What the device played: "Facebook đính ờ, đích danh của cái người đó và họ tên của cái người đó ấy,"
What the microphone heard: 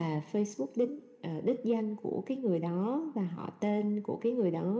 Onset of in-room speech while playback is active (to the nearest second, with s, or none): none